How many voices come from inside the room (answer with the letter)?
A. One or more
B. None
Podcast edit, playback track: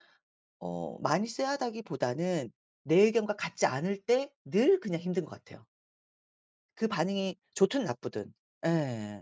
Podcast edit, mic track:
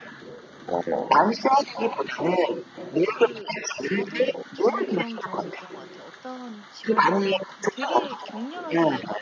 A